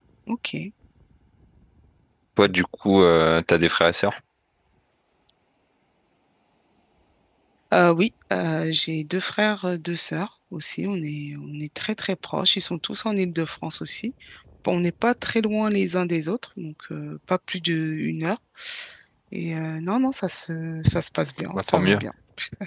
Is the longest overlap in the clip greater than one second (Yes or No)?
No